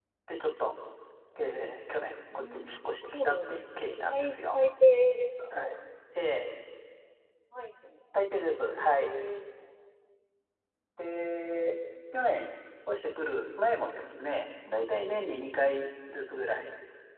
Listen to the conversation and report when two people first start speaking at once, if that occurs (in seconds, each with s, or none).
2.3 s